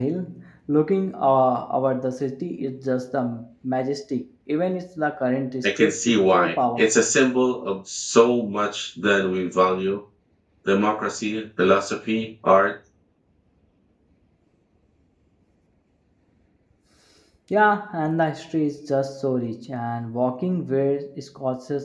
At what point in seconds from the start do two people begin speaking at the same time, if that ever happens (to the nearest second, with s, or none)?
6 s